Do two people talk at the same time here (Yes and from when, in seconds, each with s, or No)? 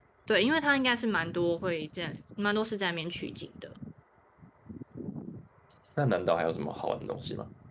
No